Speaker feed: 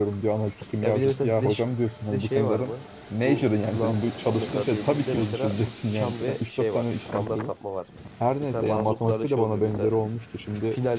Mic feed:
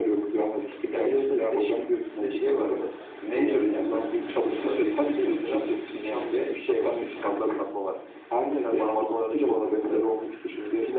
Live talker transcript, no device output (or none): Evet, bizde öyle durumlar.